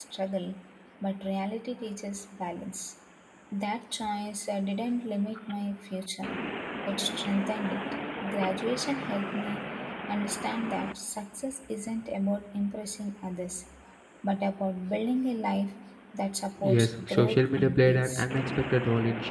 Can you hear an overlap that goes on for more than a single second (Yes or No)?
Yes